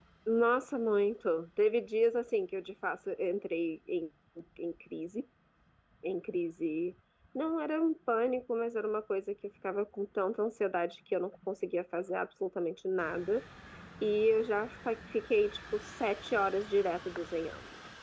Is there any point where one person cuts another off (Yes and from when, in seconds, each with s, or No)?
No